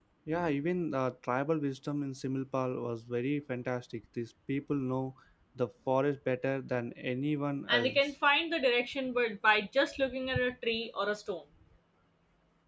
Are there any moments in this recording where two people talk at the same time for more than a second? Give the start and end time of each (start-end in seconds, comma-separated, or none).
none